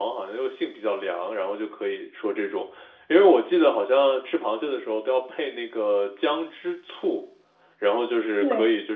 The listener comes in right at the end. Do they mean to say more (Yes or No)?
No